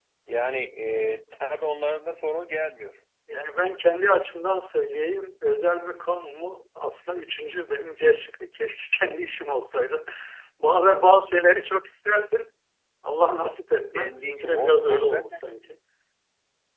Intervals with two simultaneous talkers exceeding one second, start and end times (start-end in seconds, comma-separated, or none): 13.9-15.4